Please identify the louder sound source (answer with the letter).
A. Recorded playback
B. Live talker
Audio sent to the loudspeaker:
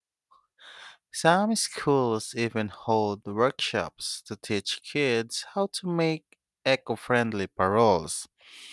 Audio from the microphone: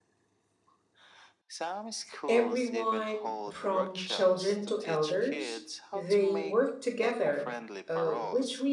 B